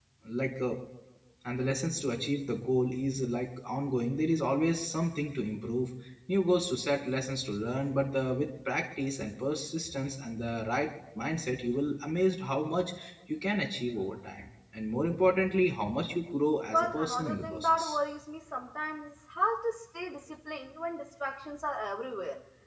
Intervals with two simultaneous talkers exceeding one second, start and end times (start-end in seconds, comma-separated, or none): 16.7-18.0